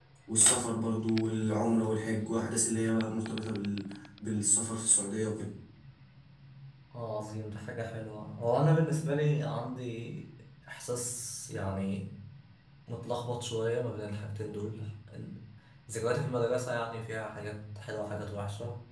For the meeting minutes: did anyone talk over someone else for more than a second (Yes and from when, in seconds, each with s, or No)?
No